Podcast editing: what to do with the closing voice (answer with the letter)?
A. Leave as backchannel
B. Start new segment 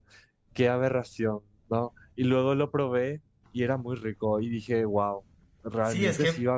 B